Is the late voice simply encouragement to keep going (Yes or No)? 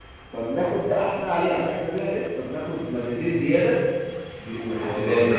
No